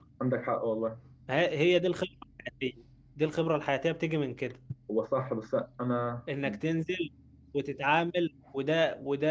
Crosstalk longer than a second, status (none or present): none